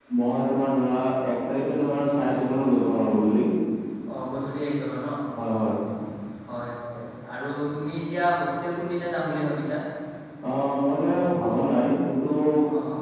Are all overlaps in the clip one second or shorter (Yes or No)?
Yes